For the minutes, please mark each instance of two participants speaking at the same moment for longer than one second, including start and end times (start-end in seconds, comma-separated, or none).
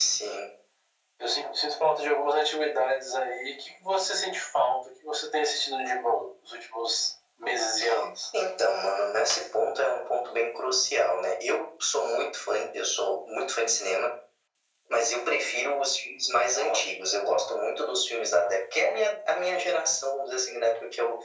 none